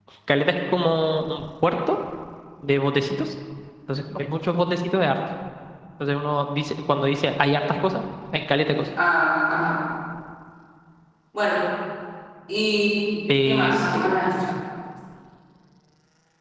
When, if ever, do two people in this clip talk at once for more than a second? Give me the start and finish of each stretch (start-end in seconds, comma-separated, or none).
none